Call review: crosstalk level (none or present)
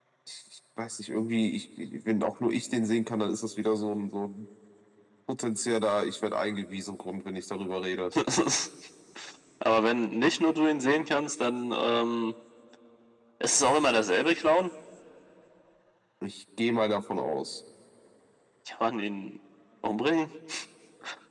none